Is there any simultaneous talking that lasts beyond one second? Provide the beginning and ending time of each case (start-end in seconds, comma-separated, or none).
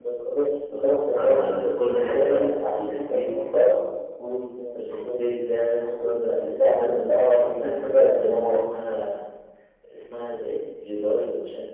1.9-3.3, 5.8-8.6